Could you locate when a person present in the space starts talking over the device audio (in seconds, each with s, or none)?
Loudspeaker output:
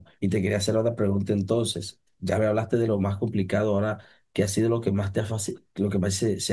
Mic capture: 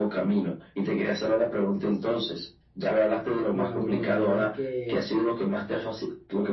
3.5 s